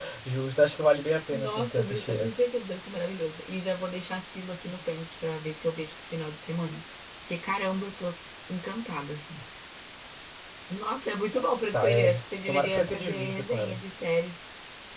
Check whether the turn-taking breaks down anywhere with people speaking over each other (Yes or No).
Yes